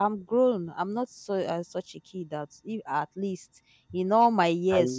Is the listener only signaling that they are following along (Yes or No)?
Yes